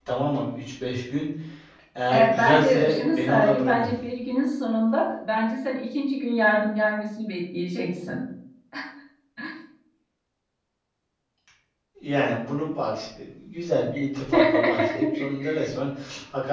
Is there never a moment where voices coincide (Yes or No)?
No